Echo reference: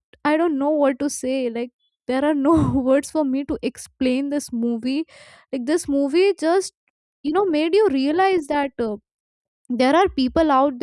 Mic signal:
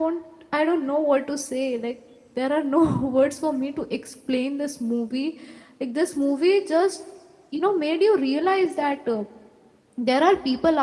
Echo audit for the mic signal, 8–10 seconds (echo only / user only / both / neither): echo only